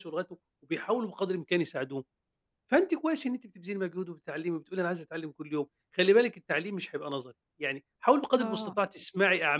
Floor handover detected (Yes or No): No